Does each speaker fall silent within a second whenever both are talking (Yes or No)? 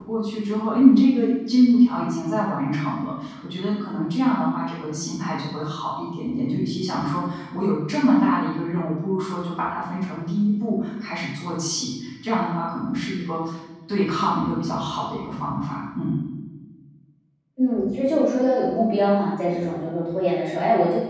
Yes